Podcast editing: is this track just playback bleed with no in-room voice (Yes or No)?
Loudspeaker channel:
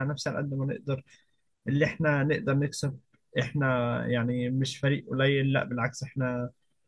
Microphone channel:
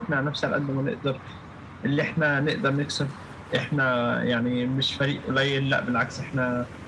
Yes